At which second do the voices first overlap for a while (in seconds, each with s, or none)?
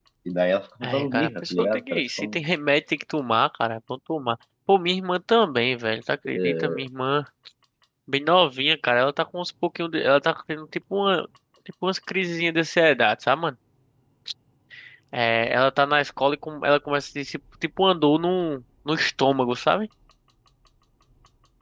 0.8 s